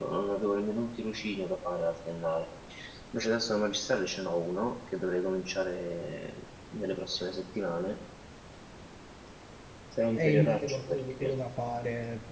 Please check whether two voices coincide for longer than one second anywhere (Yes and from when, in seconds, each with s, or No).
Yes, from 10.1 s